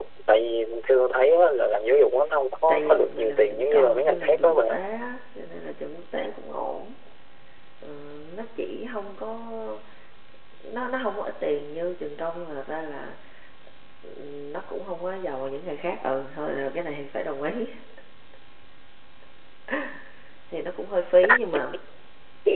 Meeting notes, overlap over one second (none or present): present